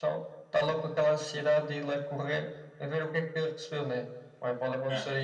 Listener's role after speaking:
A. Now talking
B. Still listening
B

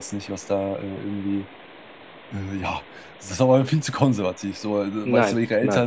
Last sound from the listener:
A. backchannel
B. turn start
A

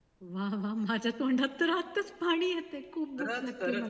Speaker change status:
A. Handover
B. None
A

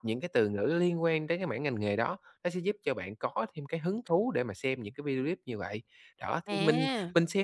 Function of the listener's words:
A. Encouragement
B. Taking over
A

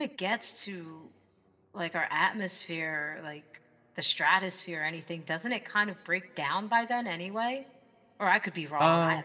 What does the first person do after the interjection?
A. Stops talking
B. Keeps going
A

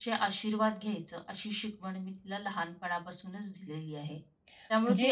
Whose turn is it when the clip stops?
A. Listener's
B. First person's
B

